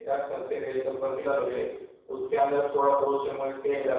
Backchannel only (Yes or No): Yes